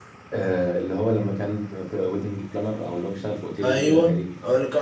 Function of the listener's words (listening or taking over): taking over